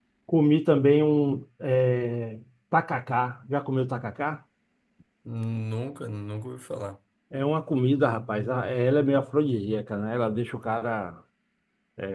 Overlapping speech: No

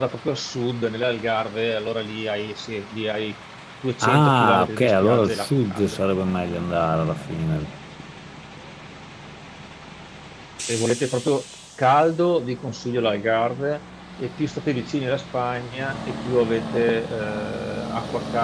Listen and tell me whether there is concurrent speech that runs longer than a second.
Yes, from 4.0 s

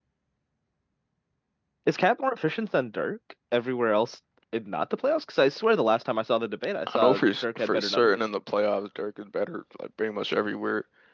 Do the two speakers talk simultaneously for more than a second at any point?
Yes, from 6.9 s

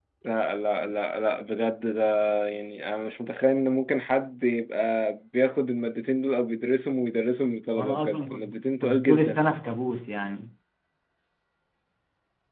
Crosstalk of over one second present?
Yes, from 7.8 s

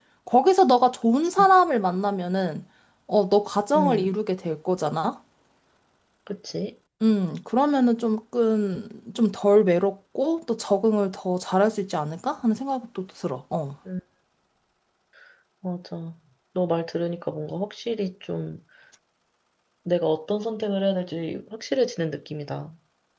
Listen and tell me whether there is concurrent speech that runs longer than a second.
No

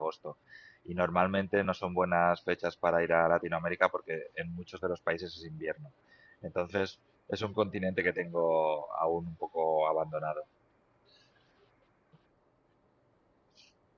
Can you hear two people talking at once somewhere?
No

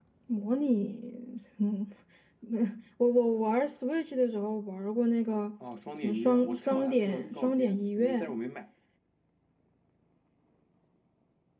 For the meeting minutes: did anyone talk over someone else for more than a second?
Yes, from 6.0 s

